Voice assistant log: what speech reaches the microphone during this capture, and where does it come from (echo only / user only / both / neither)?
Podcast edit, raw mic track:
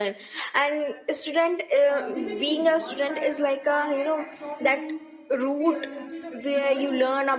both